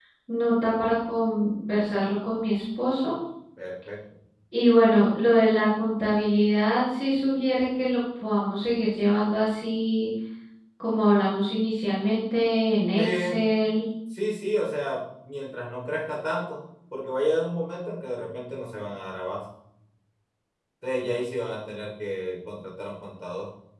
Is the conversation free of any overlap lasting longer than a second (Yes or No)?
Yes